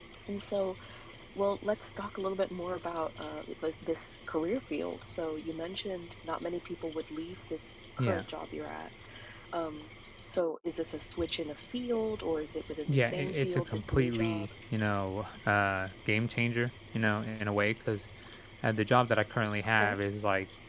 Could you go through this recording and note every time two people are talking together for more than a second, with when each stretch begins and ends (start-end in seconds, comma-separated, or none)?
12.9-14.5